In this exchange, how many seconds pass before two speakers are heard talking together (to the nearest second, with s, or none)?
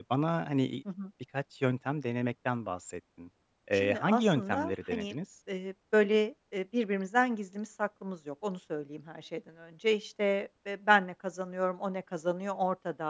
4 s